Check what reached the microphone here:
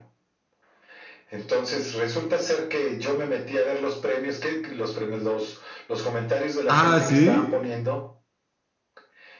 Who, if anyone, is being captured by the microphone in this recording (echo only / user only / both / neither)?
both